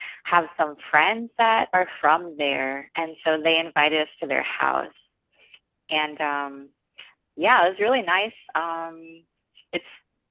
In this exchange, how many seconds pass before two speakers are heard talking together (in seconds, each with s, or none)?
none